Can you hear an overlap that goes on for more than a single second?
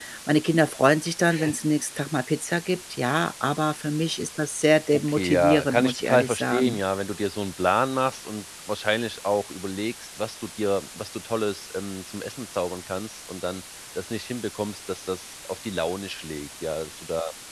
Yes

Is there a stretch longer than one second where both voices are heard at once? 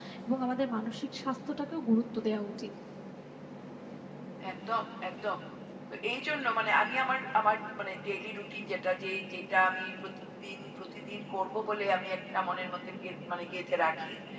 No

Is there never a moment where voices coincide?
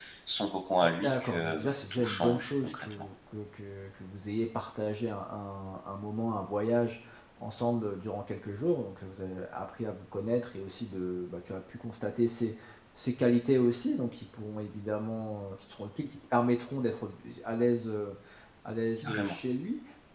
No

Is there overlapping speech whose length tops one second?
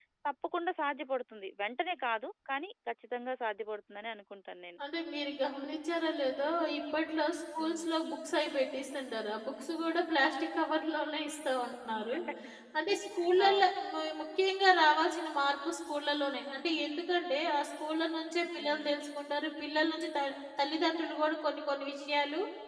No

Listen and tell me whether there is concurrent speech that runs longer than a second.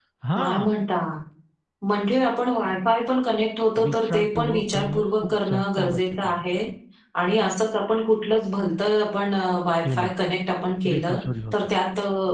Yes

